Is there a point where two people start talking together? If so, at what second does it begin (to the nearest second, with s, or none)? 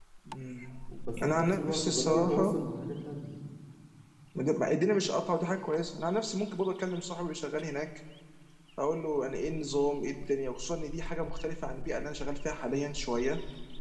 1 s